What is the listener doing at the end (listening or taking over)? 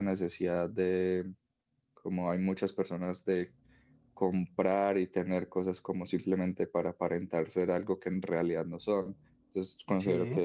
listening